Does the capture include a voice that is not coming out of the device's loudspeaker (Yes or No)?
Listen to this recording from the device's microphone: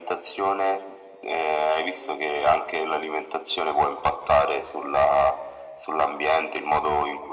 No